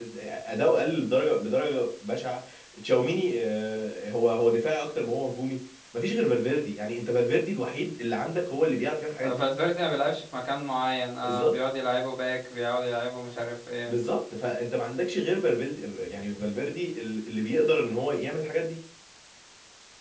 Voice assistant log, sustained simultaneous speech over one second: none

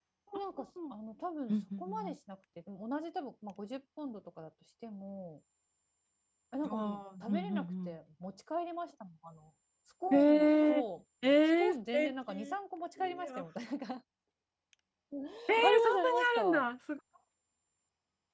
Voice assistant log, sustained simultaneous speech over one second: present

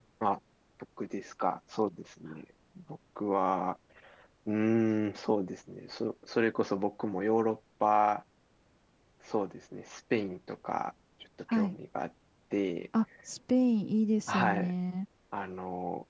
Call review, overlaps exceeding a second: none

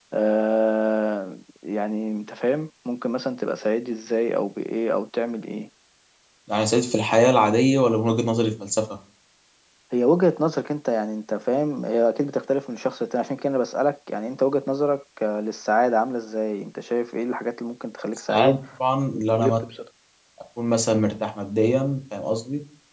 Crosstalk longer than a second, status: none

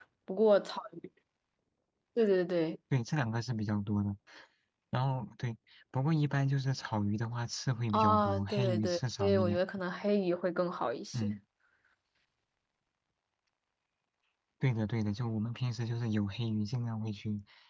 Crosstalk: present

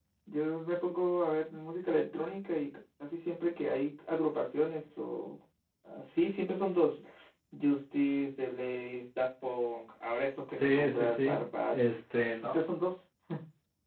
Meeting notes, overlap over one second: present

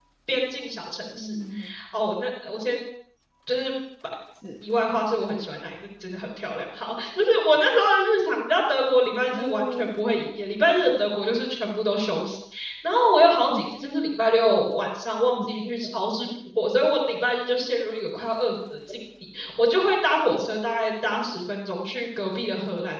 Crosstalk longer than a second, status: none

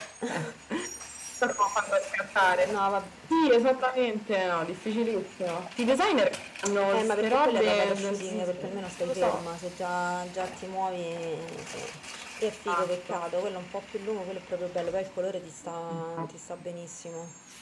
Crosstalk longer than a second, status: present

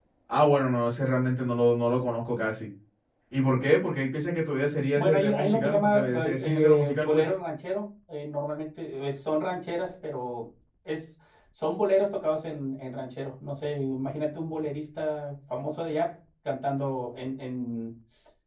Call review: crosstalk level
present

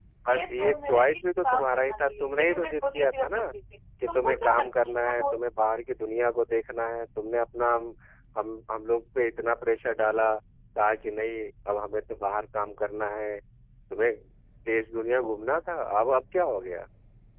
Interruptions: present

